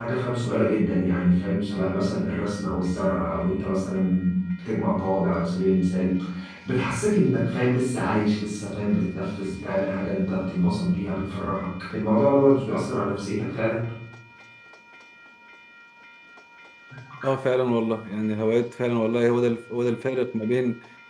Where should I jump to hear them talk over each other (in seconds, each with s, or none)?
none